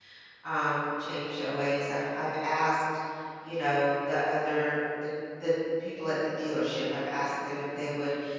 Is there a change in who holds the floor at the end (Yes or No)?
No